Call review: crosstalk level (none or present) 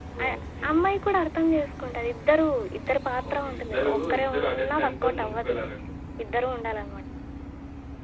present